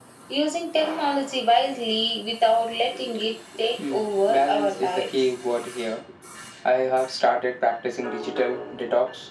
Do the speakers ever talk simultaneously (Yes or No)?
Yes